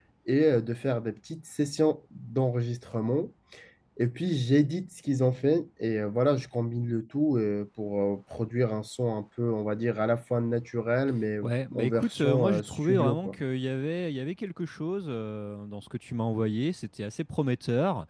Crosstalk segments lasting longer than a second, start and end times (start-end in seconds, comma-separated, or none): 11.4-13.4